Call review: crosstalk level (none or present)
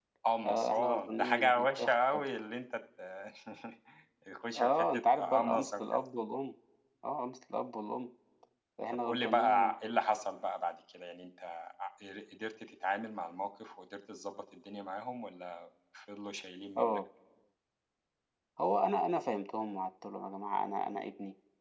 present